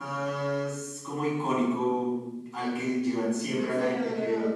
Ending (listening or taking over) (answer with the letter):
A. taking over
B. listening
B